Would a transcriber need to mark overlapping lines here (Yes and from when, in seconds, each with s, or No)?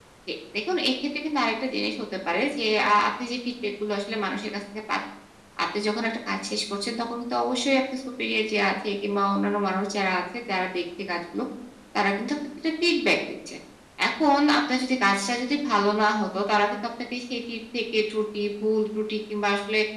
No